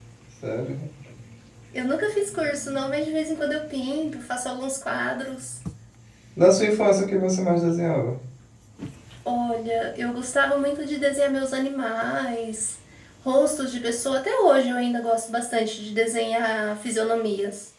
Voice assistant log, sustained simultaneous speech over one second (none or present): none